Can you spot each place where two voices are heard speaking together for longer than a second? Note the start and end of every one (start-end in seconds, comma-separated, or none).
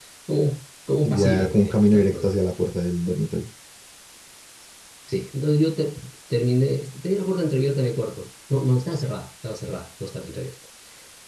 1.1-2.7